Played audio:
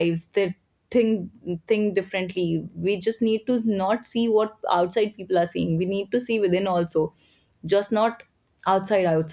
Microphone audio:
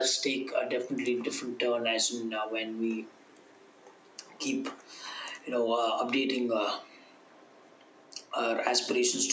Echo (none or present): none